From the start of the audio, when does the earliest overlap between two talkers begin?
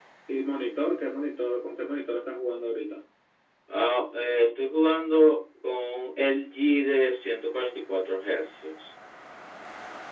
none

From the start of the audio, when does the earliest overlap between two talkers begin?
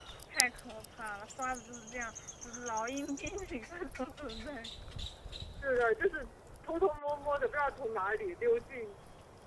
none

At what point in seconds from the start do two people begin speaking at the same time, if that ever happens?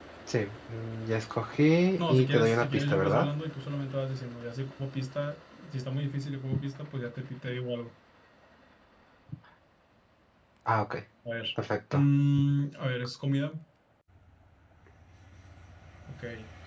2.0 s

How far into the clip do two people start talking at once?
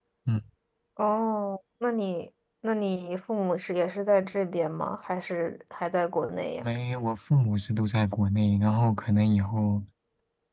none

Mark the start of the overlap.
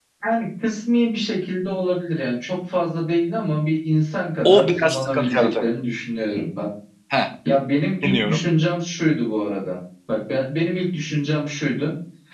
4.4 s

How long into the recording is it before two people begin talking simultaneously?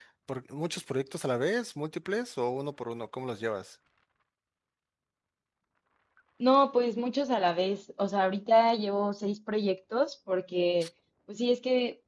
none

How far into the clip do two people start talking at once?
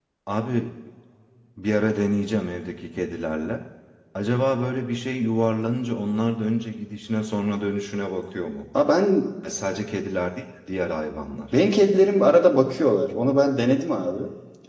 none

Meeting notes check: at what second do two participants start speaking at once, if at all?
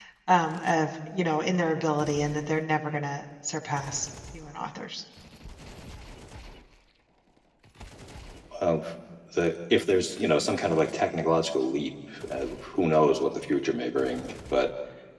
none

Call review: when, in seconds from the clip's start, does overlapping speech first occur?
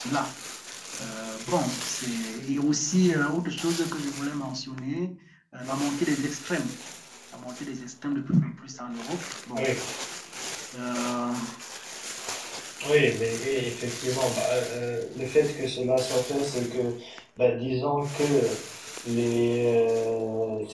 none

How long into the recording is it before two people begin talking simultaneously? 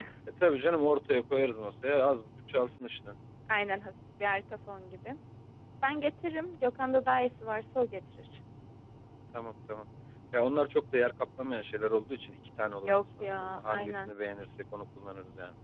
12.8 s

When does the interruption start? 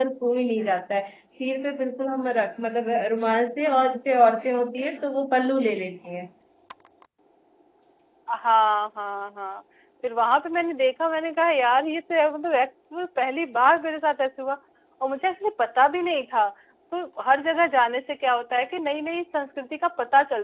none

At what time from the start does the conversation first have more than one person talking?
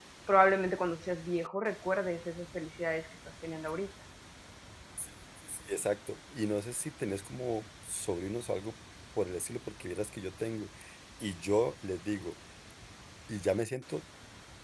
none

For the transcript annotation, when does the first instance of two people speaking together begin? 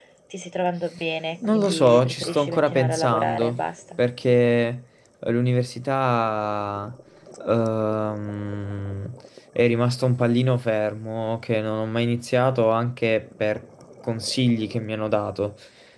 1.4 s

